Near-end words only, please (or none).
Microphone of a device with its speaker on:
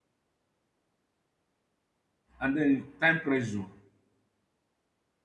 And then time pressure.